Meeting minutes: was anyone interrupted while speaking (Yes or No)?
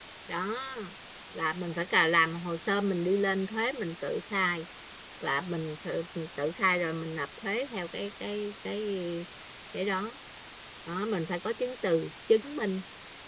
No